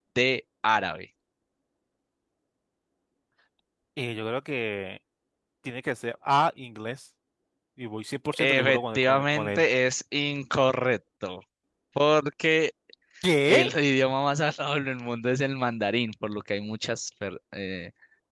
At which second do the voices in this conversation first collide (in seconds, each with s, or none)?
8.4 s